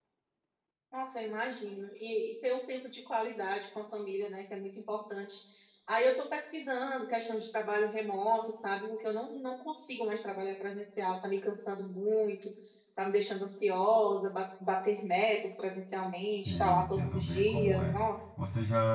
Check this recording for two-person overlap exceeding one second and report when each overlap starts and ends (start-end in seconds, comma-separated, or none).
16.4-18.0